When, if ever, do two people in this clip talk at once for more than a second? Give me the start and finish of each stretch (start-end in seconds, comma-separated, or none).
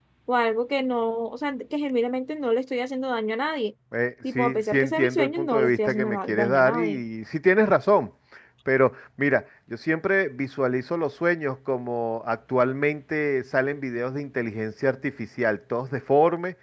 4.3-6.8